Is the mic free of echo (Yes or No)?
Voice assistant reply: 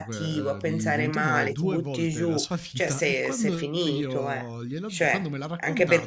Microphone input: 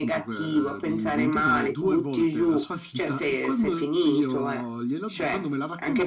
No